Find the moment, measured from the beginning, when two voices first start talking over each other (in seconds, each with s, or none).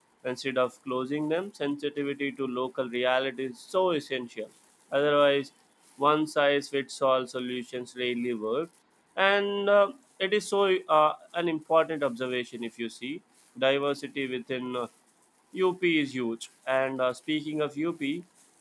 none